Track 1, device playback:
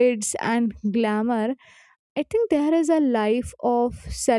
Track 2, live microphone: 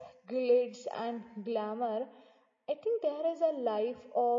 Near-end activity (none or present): none